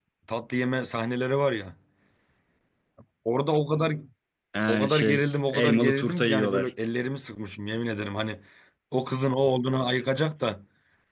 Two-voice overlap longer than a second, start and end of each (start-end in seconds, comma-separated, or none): 4.7-6.7